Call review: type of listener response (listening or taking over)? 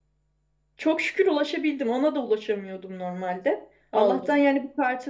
listening